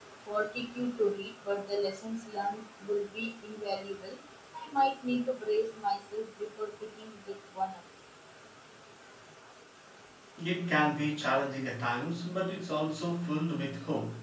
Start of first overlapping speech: none

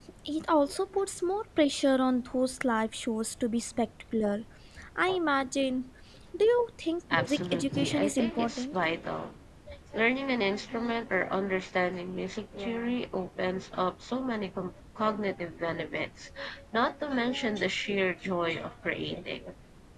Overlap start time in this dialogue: 7.1 s

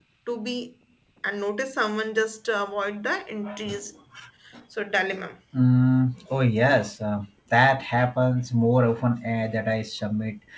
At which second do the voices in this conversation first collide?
none

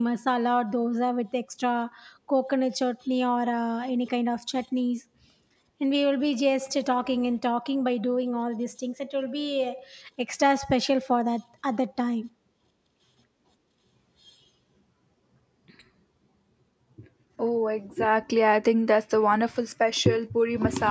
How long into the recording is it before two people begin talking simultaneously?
none

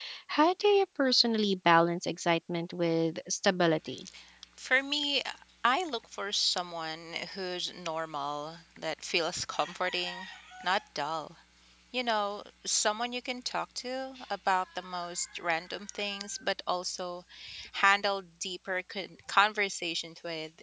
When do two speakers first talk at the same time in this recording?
none

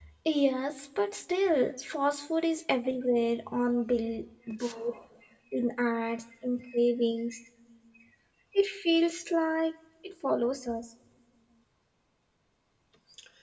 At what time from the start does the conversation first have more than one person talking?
none

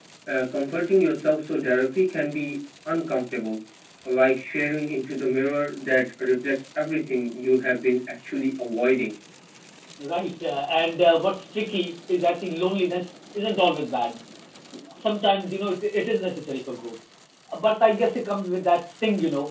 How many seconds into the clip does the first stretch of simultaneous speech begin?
none

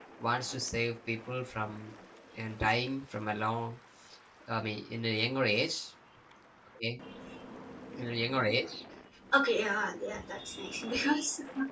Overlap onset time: none

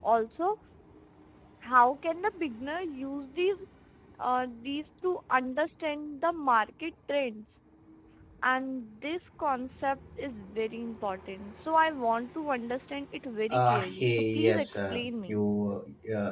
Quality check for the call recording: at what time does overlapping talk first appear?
13.5 s

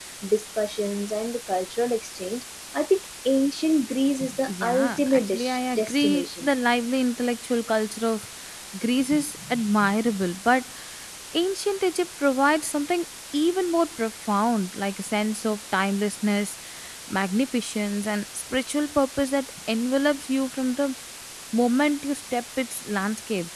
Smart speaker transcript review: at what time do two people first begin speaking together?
4.5 s

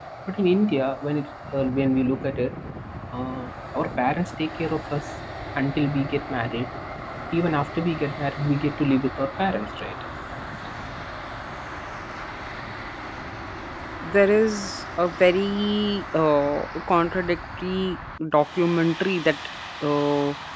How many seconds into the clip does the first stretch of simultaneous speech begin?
none

